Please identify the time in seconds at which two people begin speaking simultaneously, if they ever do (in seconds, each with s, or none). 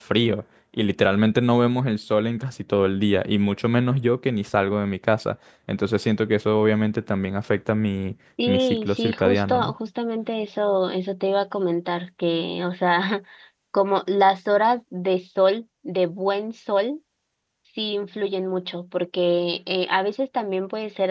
8.4 s